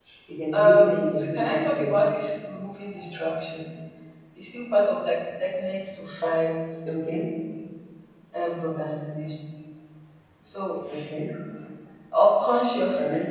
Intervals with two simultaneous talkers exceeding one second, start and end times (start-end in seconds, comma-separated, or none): 0.5-1.9